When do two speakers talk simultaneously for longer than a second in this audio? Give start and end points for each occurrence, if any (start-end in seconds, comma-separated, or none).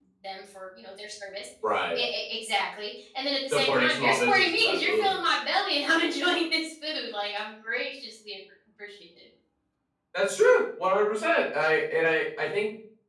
3.5-5.1